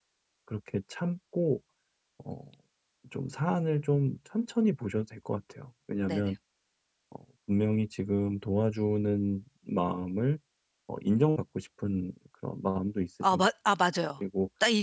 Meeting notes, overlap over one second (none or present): none